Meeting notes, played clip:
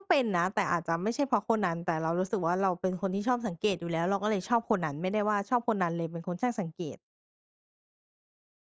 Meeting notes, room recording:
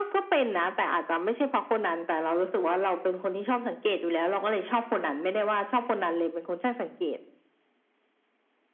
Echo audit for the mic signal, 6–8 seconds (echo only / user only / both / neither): echo only